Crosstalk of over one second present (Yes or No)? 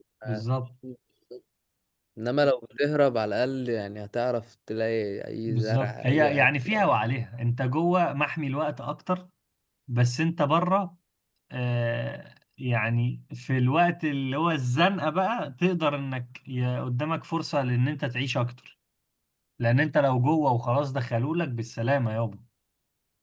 Yes